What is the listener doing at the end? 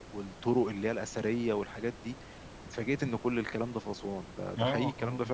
taking over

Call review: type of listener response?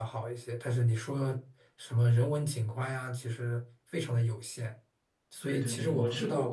taking over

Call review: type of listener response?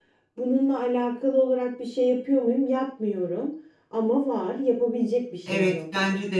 taking over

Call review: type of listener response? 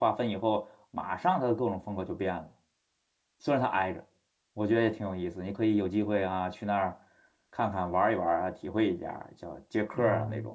taking over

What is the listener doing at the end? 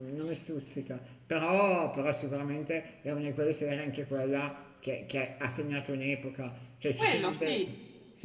listening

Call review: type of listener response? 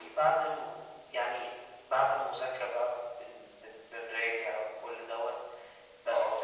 listening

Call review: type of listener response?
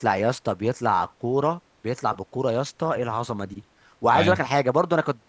listening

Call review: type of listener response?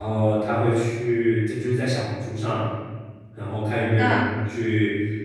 listening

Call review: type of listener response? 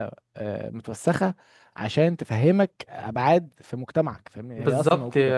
taking over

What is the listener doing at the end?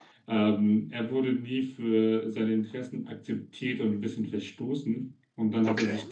listening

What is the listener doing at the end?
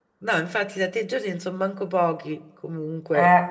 taking over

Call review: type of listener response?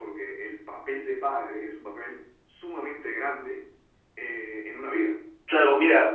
taking over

